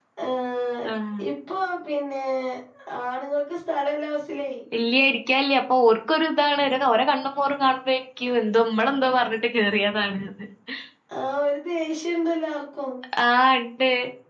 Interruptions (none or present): none